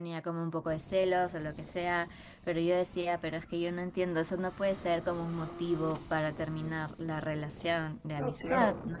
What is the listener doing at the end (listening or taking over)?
taking over